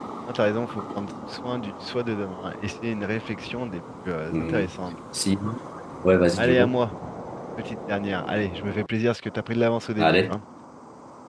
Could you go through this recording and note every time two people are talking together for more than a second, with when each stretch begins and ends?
none

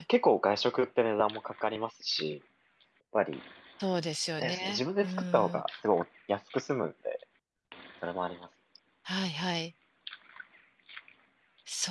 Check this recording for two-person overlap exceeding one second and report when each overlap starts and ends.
4.4-5.6

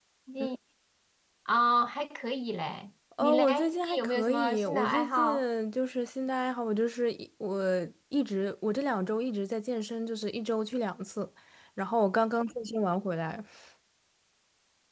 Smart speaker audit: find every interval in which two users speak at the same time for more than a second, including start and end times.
3.2-5.4

